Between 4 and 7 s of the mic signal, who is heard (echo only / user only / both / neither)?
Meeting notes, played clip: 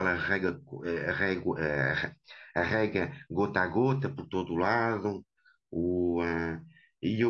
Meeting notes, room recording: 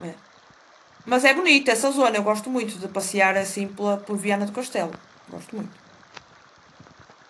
user only